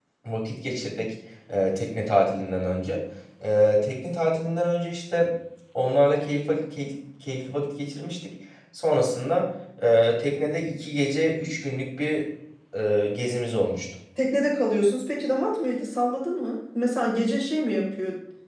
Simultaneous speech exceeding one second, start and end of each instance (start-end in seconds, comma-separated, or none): none